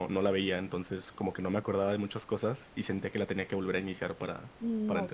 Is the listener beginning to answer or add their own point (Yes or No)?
Yes